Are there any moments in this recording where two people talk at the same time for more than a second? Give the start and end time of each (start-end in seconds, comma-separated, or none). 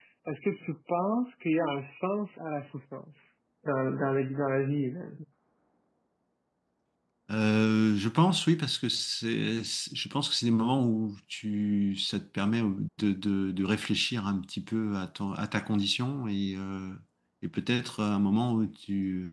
none